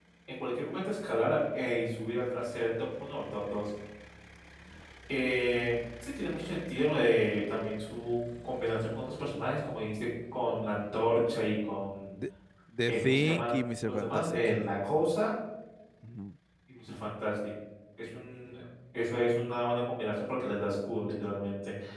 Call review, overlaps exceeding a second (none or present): present